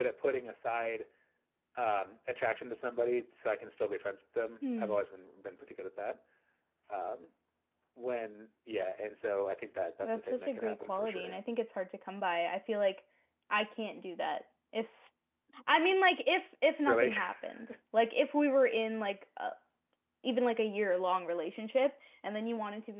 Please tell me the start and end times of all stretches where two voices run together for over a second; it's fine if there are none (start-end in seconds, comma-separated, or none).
10.0-11.4